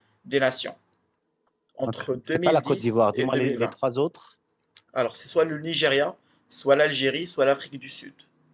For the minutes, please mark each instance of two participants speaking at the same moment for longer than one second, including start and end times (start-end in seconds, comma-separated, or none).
1.9-3.7